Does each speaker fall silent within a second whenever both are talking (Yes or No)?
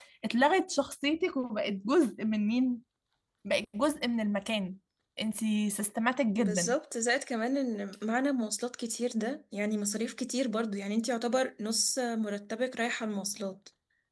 Yes